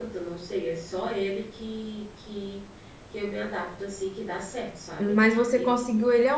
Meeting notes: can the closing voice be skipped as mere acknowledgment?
No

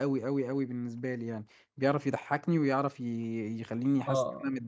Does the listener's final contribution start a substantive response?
Yes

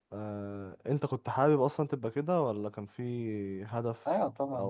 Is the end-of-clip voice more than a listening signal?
Yes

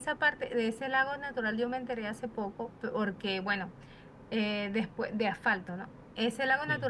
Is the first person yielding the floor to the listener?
No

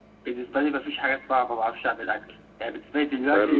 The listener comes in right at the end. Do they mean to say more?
No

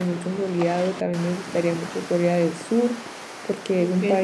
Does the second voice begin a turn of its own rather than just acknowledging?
No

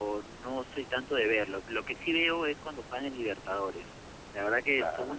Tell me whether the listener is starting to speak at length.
No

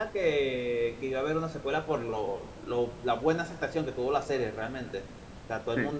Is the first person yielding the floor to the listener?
No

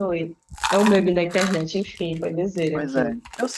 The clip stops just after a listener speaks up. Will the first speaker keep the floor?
No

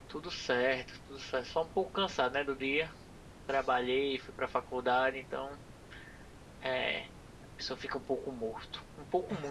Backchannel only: No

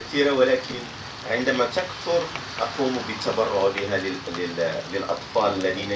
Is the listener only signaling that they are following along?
Yes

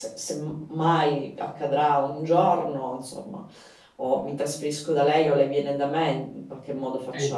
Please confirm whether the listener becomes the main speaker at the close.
Yes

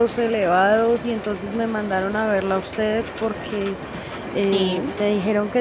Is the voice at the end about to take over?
No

